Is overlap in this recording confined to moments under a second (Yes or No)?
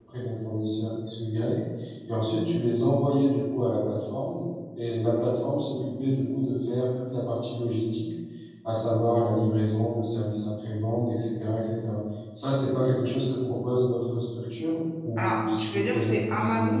No